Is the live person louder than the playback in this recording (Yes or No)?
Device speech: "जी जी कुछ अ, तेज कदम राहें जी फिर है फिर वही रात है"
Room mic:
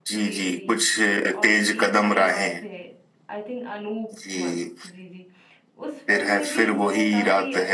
No